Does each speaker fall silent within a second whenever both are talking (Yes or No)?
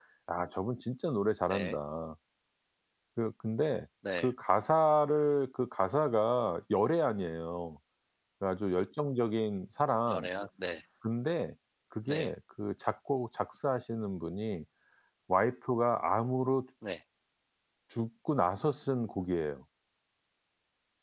Yes